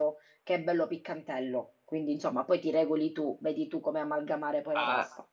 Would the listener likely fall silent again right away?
No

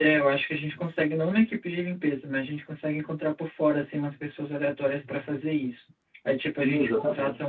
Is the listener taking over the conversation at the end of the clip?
No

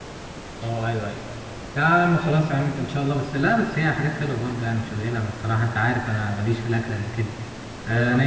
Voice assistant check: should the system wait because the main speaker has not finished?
Yes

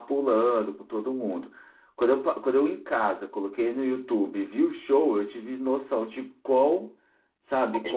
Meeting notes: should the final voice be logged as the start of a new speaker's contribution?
No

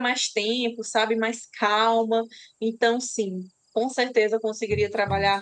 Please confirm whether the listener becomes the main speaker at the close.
No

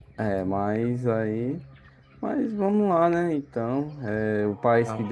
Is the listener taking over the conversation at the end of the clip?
No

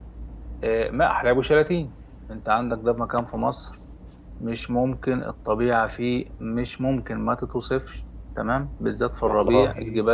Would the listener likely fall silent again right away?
Yes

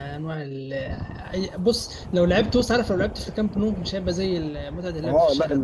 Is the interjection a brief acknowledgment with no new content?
No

